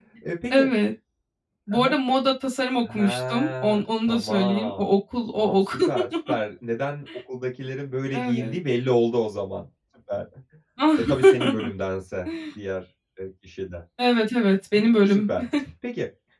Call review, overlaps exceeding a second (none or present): present